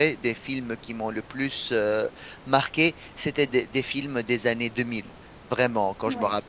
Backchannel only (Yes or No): Yes